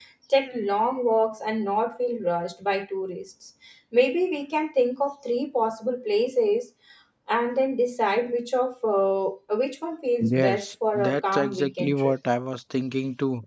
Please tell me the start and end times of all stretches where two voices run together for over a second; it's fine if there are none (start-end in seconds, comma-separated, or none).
10.2-12.2